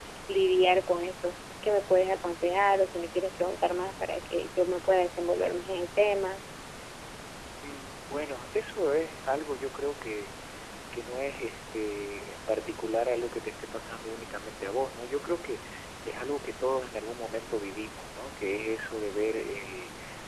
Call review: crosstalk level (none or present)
none